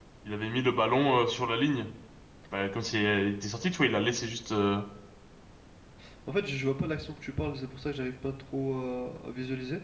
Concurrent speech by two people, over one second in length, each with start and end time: none

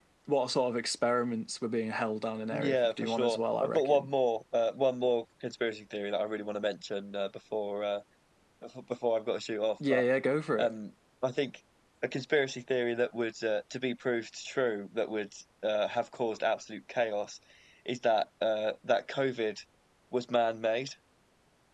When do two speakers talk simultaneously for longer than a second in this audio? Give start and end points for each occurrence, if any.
2.5-4.1

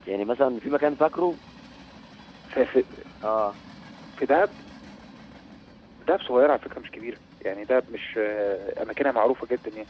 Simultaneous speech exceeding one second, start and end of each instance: none

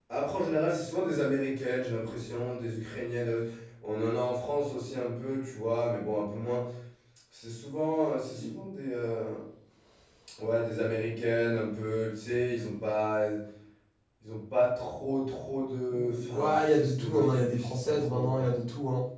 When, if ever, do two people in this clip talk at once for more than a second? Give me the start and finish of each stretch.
15.9-18.6

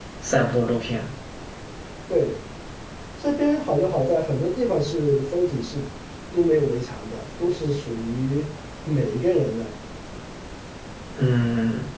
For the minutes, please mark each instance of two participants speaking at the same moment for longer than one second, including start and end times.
none

